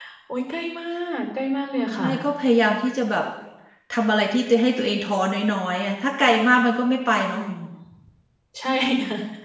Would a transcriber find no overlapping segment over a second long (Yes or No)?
Yes